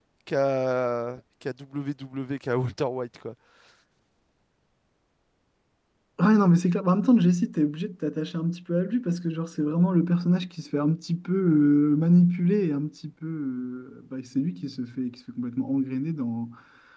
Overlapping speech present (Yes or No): No